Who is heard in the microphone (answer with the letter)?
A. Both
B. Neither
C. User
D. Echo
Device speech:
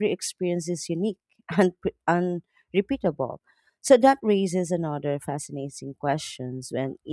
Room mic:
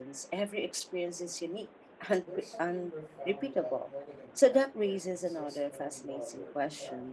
A